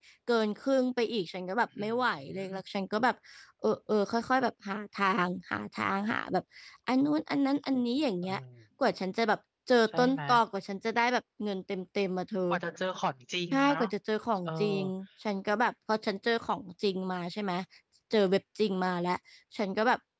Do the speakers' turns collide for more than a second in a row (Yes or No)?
No